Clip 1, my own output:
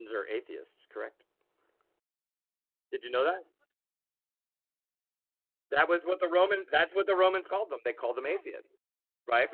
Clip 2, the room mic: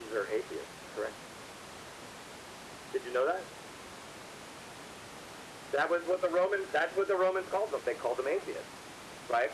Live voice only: none

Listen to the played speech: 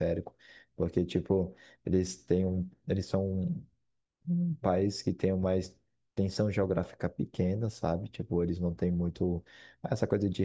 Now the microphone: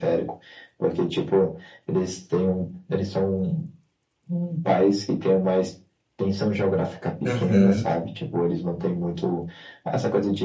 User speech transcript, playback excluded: Uhum,

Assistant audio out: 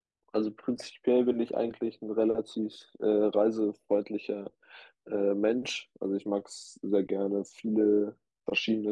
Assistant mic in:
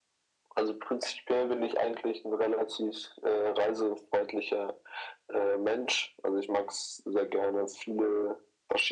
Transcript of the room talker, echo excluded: none

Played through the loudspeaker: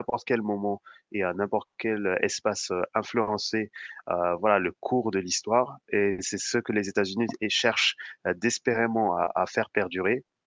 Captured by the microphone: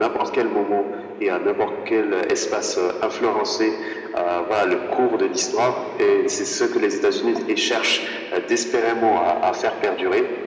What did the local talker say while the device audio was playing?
none

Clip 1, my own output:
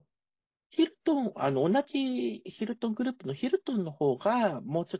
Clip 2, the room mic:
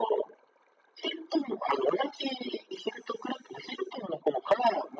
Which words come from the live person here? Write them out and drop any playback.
none

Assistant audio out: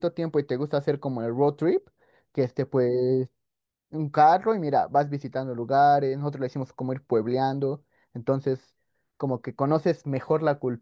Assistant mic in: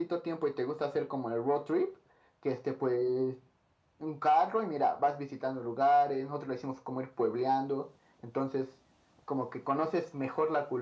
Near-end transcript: none

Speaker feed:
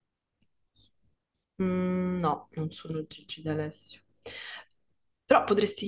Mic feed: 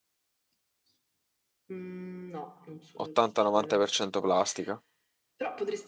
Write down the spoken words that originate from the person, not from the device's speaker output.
80-90% plastica.

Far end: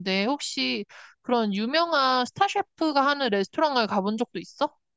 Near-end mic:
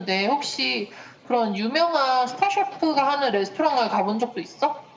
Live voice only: none

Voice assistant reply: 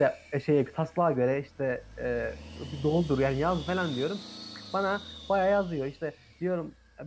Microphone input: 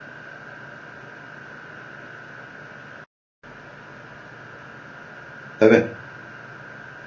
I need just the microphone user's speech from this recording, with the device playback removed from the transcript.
Tabii.

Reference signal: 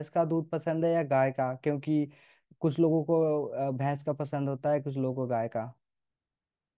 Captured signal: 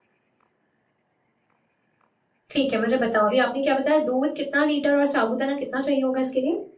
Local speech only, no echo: ठीक है मुझे बताओ अभी आपने क्या बताया दूध कितना लीटर और साबूदाना कितना चाहिए होगा इसके लिए

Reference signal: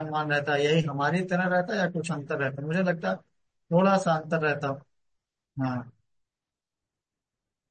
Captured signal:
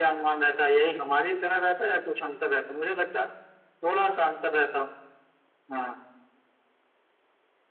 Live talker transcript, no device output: none

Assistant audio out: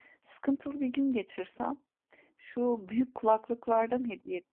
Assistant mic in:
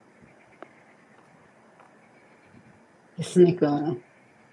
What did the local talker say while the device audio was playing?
Kesinlikle öyle.

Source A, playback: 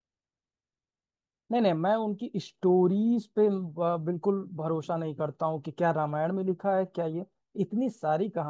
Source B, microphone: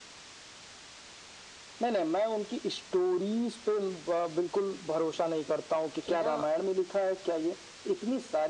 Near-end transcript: कि ना

